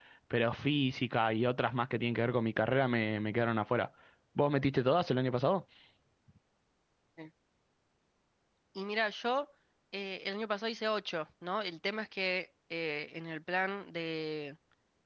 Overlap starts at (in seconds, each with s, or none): none